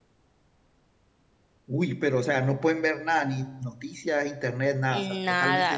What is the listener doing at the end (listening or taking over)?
taking over